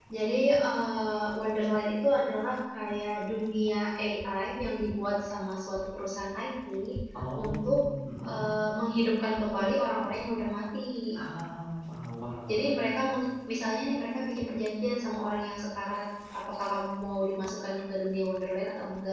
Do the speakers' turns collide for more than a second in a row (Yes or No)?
No